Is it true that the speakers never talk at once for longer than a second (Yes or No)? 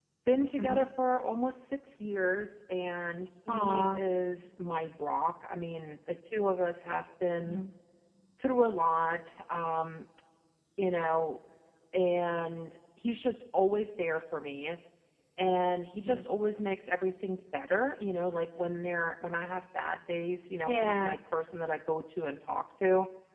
Yes